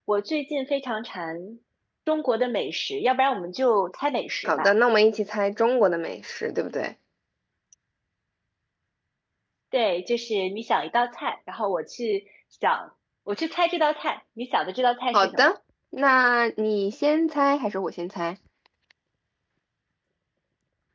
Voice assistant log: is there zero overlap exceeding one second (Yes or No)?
Yes